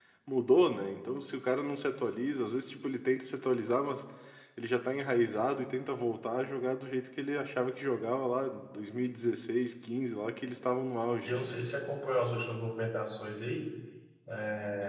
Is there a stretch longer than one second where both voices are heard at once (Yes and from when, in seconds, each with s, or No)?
No